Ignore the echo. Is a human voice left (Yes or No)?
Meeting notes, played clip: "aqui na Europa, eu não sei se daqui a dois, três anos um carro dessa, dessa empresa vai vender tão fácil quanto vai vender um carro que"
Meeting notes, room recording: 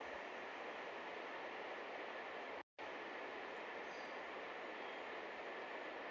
No